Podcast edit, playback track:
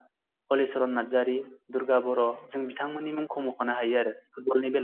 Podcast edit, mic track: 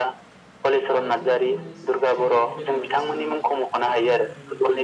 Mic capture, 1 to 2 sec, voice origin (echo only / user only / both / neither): both